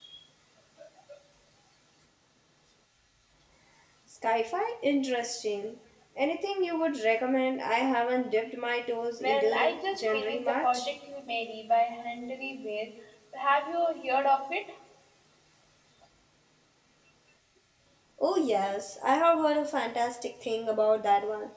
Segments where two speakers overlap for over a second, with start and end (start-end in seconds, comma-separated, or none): 9.2-10.9